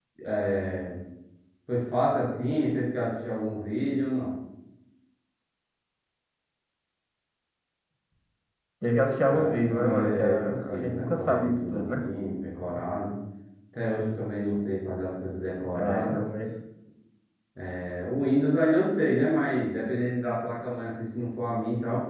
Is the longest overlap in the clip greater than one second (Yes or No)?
Yes